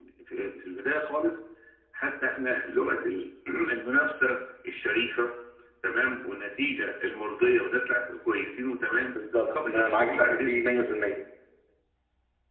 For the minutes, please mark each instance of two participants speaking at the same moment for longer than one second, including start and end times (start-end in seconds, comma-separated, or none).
9.3-10.6